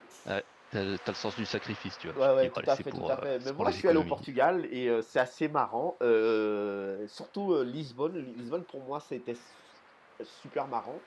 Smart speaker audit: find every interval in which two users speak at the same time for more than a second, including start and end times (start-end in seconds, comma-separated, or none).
2.1-4.2